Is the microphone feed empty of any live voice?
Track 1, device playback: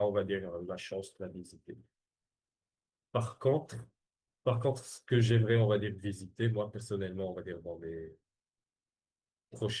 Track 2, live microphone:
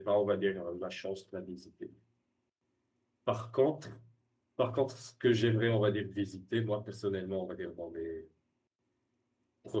Yes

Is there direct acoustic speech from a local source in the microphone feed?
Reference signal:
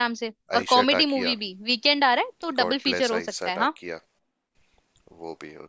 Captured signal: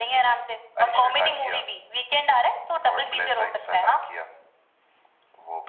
No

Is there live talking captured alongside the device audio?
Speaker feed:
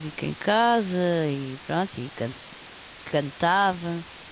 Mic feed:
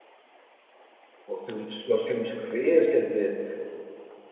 Yes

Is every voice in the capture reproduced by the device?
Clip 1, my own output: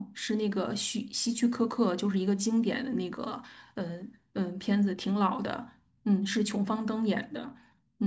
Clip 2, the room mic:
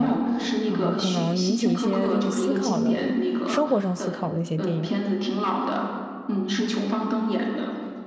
No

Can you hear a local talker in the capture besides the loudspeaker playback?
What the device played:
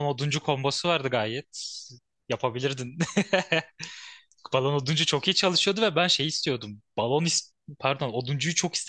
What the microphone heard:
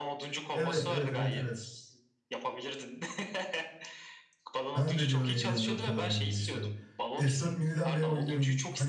Yes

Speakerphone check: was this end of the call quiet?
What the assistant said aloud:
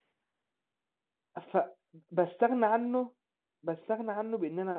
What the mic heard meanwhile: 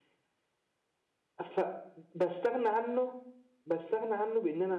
Yes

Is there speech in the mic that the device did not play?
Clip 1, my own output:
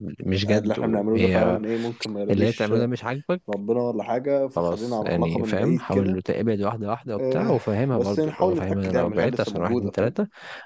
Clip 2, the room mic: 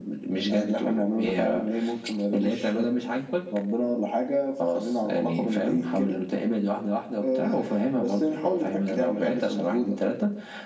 No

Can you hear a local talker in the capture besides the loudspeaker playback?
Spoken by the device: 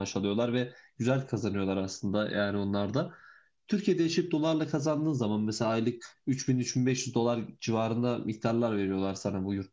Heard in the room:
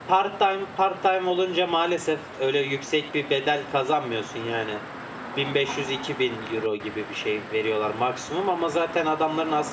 Yes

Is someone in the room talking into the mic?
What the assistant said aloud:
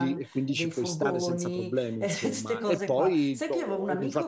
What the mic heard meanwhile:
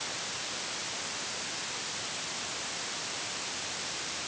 No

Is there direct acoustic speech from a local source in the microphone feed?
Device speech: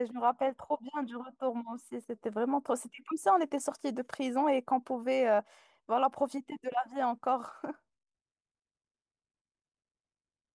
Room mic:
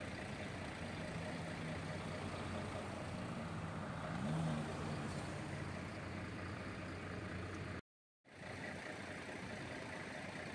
No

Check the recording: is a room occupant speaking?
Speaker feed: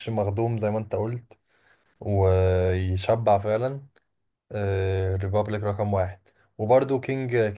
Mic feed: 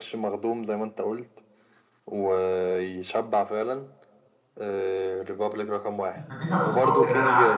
Yes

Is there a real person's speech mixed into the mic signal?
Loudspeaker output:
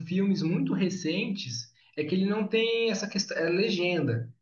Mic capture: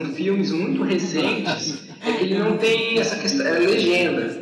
Yes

